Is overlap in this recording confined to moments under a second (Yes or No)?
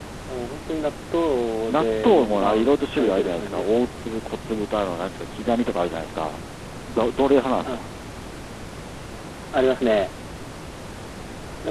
No